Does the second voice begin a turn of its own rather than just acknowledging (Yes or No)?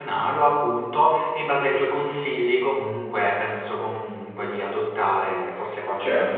Yes